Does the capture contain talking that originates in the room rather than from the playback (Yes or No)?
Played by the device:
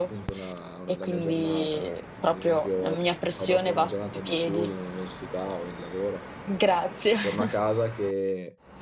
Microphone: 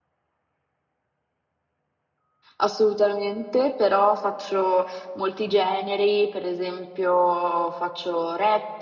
Yes